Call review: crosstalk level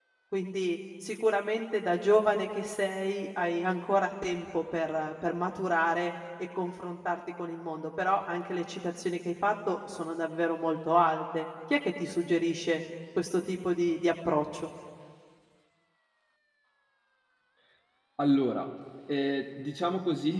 none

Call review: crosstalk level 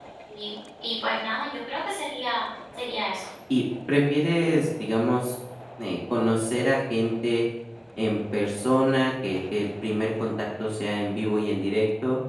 none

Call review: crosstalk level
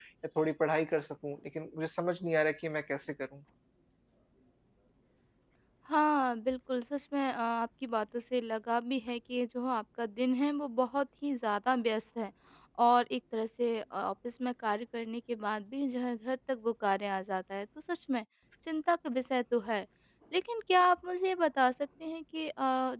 none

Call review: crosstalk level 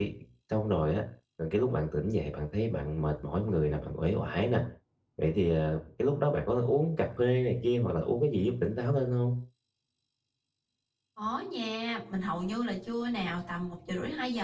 none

